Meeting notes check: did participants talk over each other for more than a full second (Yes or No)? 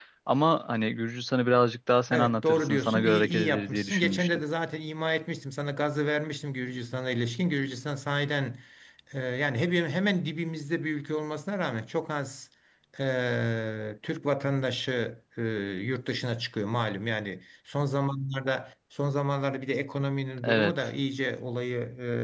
Yes